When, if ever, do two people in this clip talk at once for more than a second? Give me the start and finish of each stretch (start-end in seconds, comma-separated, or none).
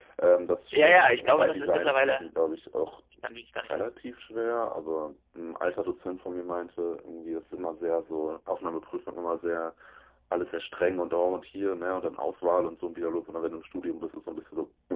0.7-2.3